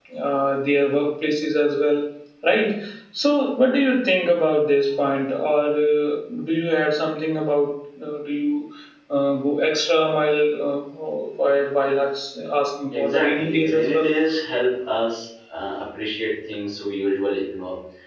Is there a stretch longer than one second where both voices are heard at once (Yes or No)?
Yes